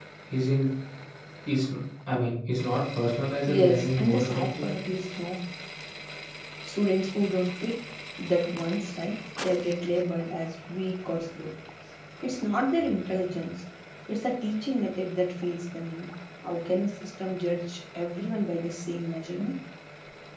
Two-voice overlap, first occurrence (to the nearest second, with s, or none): 3 s